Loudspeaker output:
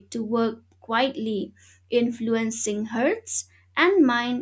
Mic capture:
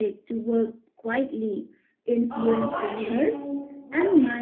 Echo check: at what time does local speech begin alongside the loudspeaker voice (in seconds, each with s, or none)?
2.3 s